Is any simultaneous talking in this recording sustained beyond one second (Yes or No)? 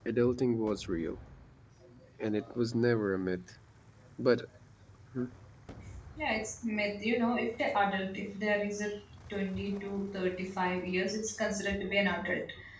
No